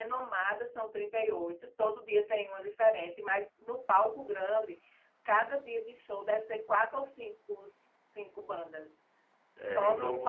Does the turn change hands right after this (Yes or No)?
Yes